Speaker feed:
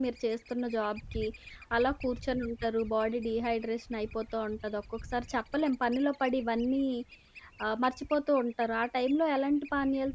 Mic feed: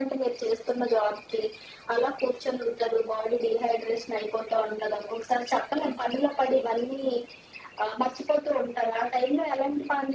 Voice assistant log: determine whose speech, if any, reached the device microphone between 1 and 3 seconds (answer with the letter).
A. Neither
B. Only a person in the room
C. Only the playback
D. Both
C